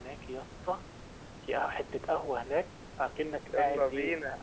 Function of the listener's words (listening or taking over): listening